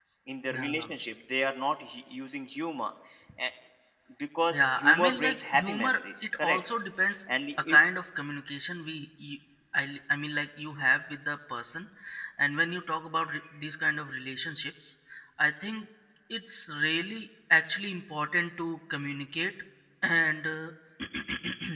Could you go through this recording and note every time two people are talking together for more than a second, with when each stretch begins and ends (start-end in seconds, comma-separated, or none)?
4.5-6.6